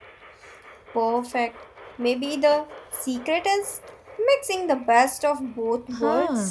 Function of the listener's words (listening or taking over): taking over